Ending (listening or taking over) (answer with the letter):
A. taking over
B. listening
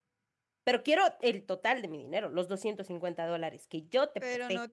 A